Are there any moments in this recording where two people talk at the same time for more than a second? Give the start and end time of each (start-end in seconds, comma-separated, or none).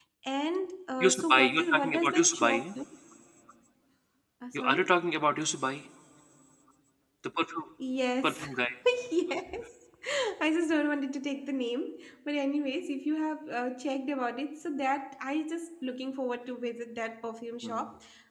1.0-2.7